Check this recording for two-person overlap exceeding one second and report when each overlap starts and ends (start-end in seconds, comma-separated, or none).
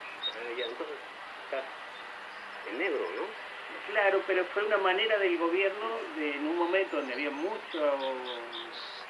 none